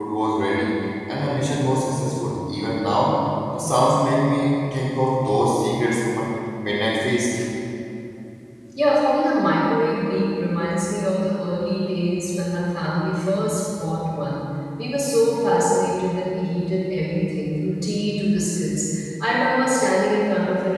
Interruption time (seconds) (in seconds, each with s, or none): none